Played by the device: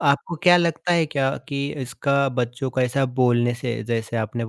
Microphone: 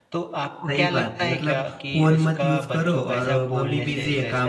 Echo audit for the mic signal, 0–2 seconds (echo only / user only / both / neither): both